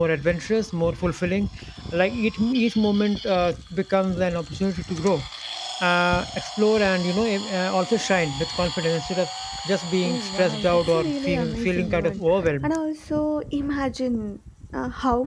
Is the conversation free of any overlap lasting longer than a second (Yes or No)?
No